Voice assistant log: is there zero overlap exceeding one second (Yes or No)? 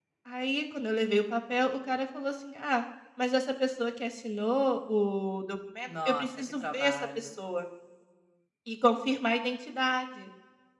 No